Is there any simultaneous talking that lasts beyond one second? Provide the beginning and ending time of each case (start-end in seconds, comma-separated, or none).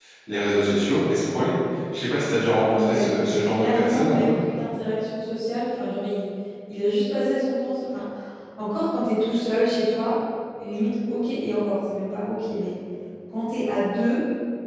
2.7-4.3